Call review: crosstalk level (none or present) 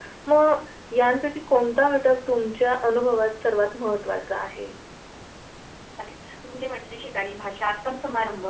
none